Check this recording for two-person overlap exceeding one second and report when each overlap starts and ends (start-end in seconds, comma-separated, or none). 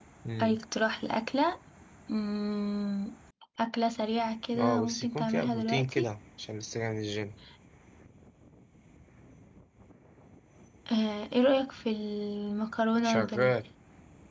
4.6-6.1